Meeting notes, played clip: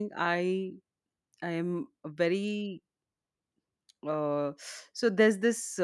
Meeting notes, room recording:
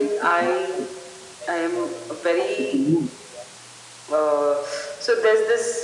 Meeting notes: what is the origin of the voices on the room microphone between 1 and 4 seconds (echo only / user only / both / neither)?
both